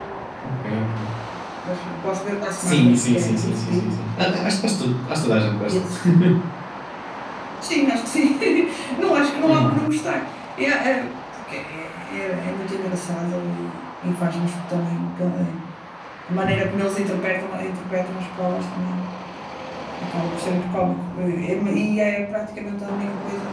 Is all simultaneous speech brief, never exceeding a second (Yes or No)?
No